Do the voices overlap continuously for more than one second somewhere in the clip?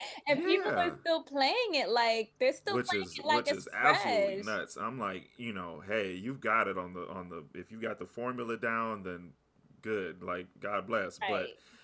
Yes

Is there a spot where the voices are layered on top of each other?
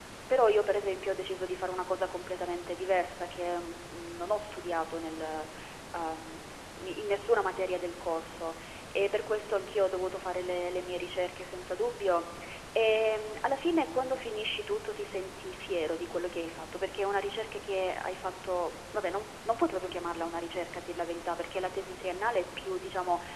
No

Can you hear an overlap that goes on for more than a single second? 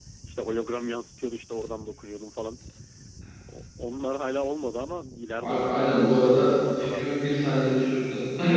Yes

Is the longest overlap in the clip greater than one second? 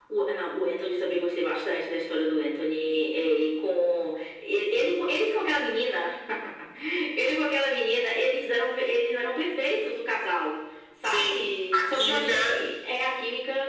Yes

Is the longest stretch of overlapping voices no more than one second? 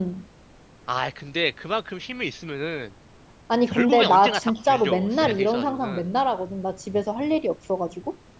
No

